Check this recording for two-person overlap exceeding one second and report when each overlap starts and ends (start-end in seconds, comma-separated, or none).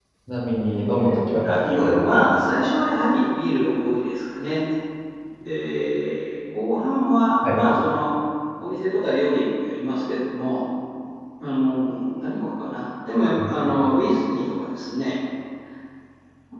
1.4-2.7